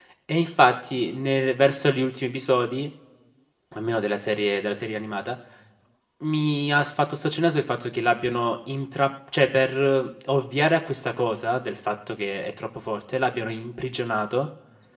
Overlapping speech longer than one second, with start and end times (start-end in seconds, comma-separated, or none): none